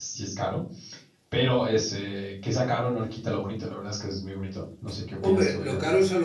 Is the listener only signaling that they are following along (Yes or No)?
No